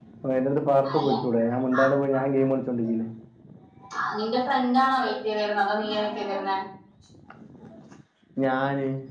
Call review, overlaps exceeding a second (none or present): none